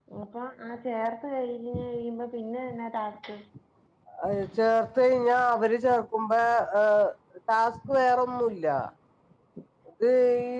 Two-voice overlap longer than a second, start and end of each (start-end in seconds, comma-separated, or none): none